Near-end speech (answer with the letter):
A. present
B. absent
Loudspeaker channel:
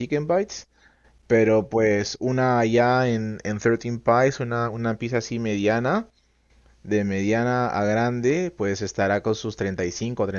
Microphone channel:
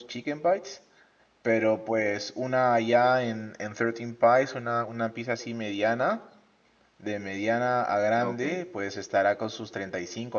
A